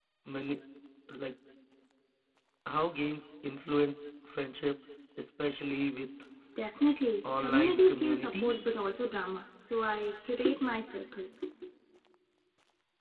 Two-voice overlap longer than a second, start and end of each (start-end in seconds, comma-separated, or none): 7.4-8.7